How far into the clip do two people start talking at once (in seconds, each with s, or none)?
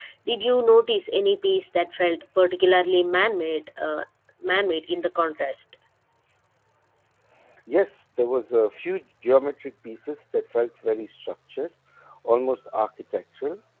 none